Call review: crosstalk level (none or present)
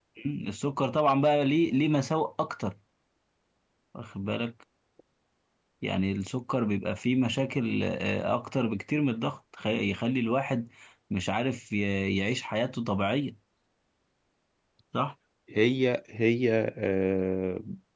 none